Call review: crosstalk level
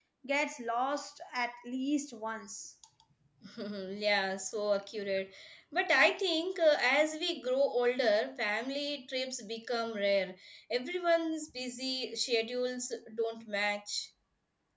none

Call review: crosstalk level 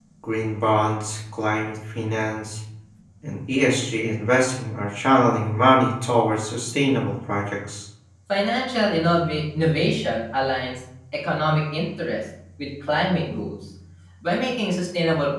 none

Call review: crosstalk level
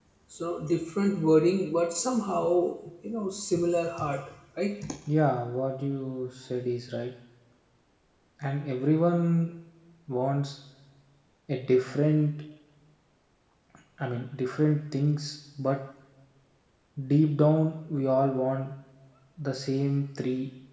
none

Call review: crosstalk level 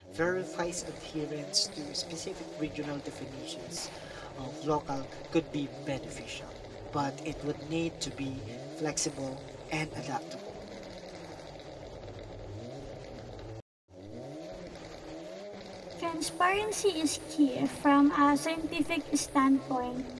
none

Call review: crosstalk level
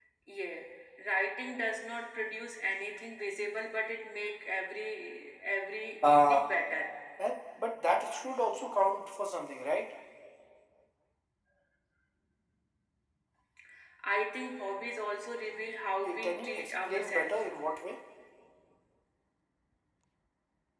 present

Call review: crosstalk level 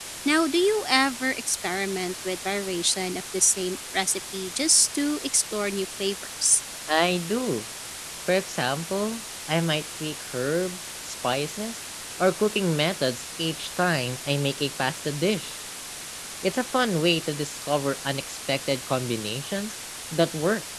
none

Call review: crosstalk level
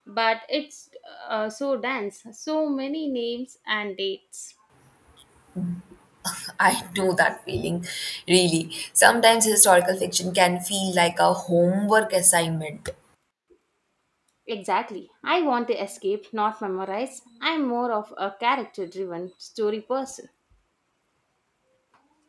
none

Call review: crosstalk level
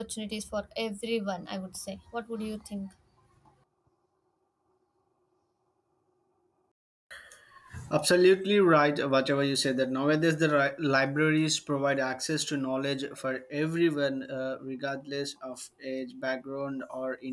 none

